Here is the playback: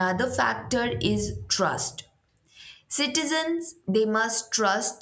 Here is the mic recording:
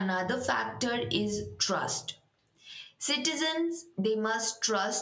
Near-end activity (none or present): none